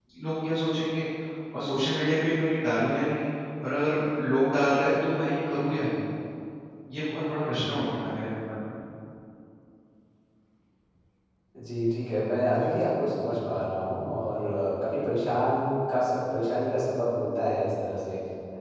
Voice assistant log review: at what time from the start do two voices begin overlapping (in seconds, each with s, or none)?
none